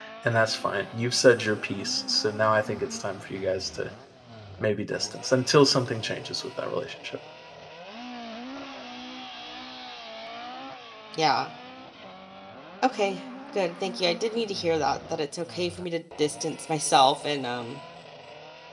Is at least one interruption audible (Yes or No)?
No